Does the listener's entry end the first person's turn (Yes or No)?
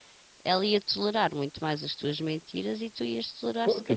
Yes